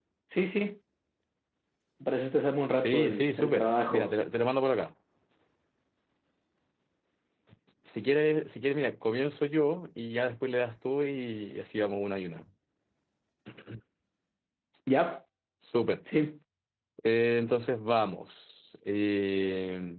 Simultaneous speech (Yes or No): Yes